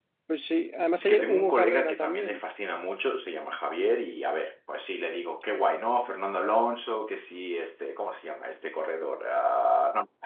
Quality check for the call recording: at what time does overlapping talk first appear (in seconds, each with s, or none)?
1.0 s